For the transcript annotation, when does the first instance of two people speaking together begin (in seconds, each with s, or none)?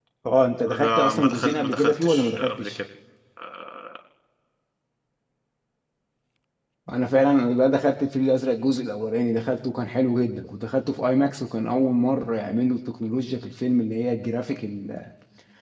0.7 s